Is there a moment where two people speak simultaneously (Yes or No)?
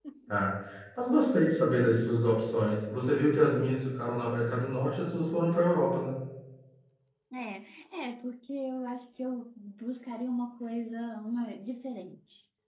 No